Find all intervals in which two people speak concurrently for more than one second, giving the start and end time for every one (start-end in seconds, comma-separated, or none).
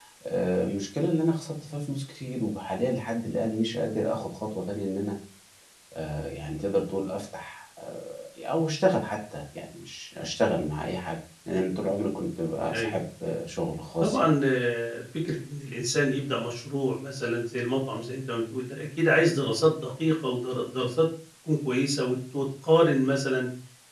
none